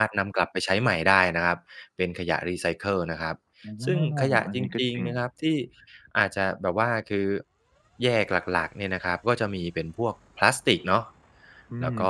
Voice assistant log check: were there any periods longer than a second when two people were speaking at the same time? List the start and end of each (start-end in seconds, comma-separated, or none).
3.9-5.0